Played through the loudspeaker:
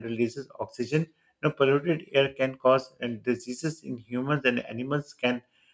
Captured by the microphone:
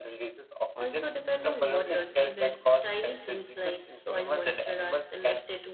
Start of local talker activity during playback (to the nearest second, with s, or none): 1 s